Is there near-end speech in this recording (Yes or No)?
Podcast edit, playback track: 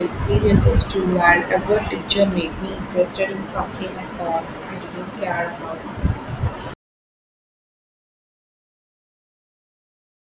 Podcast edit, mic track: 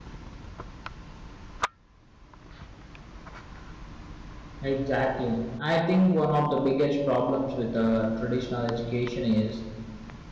Yes